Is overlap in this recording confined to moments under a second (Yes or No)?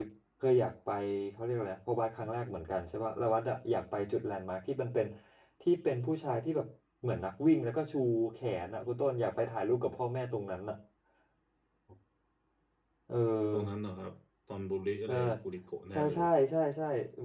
Yes